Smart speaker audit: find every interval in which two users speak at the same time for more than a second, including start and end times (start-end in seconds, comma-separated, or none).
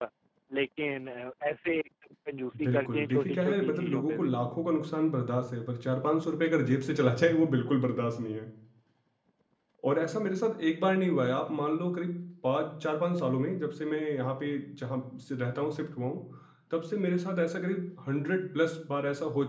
2.6-4.3